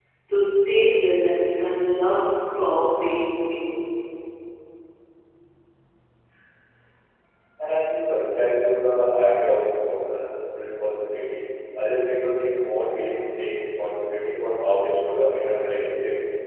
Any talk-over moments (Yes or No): No